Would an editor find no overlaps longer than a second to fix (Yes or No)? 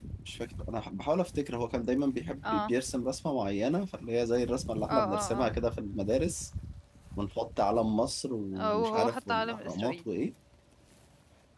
No